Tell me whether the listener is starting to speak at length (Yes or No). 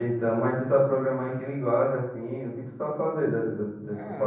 Yes